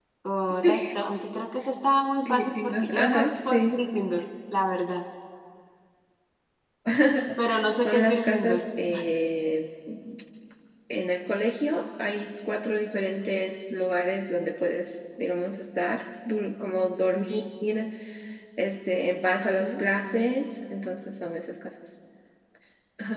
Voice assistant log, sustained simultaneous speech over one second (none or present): present